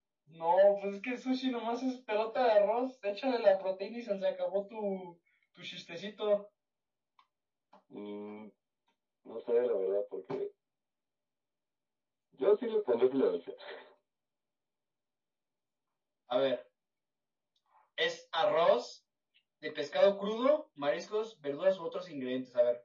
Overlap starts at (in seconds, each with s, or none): none